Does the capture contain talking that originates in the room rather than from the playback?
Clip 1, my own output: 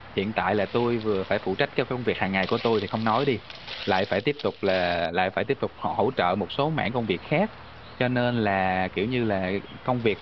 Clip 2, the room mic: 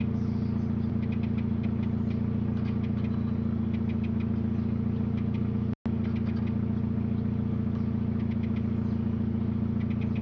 No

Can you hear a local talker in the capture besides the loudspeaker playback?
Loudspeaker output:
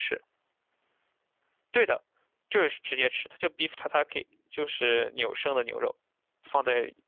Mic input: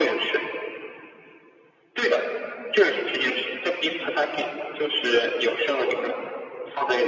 No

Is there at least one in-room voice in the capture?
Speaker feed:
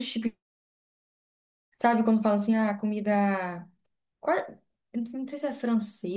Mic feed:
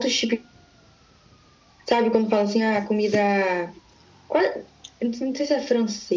No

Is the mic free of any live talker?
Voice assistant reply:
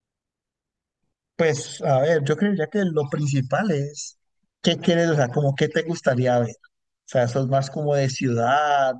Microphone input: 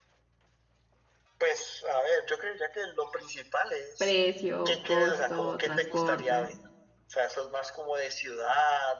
No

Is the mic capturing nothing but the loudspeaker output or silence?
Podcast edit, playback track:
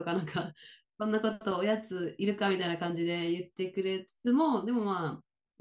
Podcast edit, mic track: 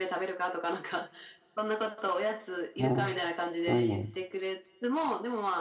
No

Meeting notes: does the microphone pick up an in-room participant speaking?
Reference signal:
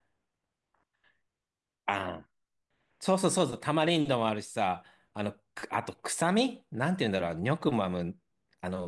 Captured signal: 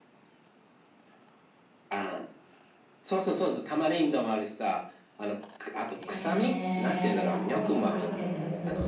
Yes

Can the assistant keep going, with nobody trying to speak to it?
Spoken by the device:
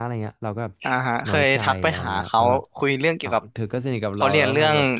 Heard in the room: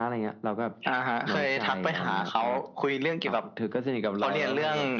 Yes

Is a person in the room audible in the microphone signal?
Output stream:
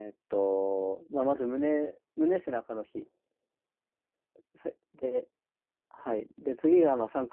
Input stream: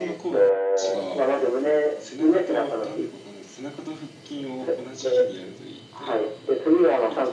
Yes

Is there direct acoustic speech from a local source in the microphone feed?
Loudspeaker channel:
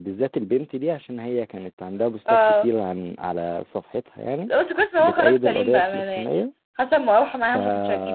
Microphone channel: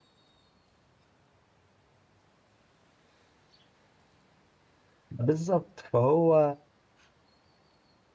Yes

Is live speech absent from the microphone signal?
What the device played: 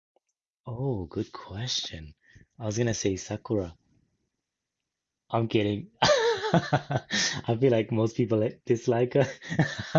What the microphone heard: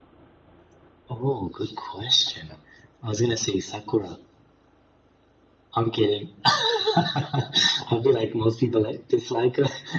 Yes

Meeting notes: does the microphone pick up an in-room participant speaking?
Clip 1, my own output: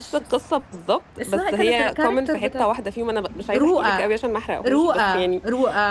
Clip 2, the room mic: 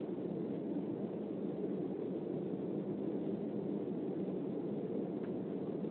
No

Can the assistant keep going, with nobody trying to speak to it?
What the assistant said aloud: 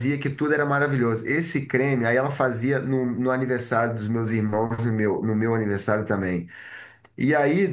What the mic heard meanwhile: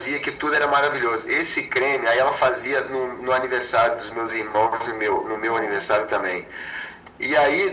No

